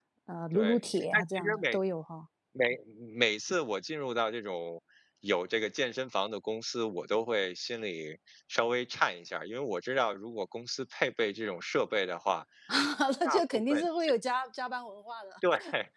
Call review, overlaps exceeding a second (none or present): present